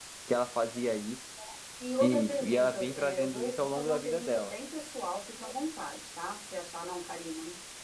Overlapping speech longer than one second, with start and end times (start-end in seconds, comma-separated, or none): 2.0-4.5